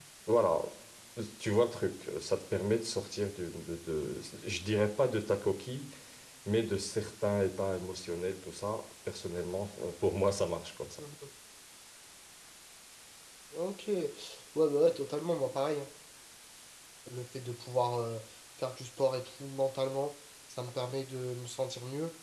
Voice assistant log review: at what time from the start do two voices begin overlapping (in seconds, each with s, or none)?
none